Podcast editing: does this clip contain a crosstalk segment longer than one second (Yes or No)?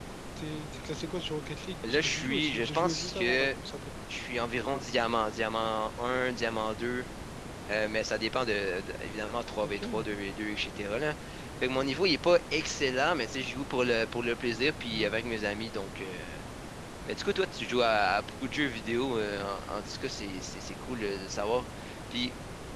Yes